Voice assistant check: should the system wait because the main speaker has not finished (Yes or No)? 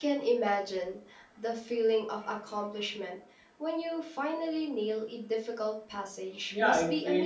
No